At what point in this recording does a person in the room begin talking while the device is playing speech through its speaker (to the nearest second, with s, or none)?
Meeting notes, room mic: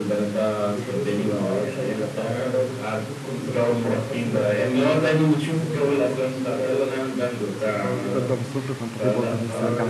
8 s